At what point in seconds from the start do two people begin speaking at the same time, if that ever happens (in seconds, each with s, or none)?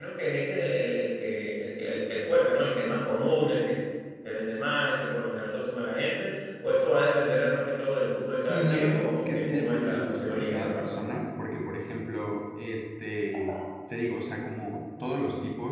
8.3 s